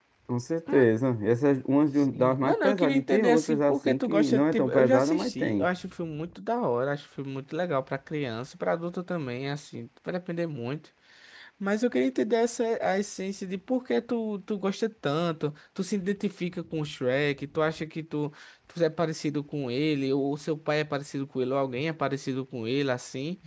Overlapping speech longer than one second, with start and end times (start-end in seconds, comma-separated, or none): 2.1-5.7